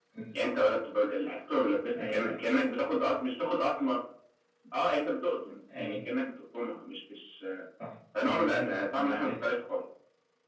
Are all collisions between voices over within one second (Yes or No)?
No